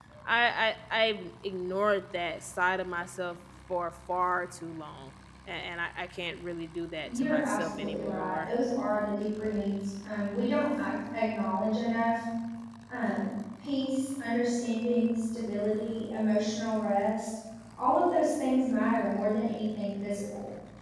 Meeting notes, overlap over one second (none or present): present